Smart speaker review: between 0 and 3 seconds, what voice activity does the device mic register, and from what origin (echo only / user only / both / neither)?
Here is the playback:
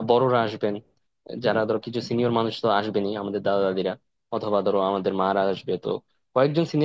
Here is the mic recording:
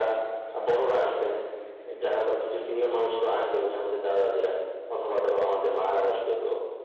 echo only